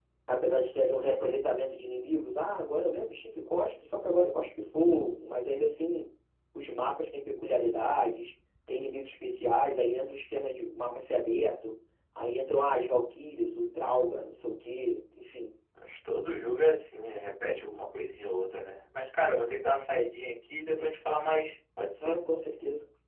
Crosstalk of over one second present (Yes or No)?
No